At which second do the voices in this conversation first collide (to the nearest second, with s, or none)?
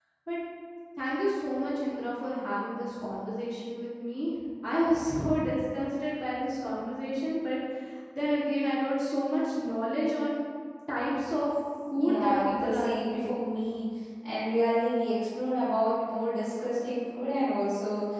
12 s